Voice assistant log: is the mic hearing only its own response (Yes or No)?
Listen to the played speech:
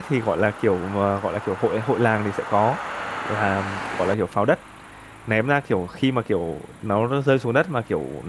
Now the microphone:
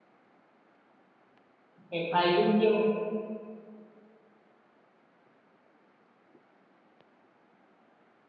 No